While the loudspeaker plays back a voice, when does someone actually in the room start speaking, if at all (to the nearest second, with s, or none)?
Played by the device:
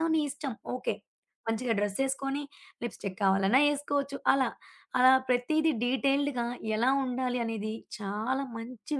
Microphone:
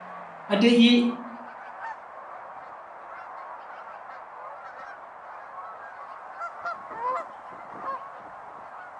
1 s